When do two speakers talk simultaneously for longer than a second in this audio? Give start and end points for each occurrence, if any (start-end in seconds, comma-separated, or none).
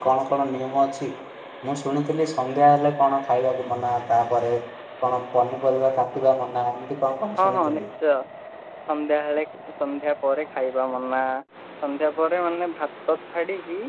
none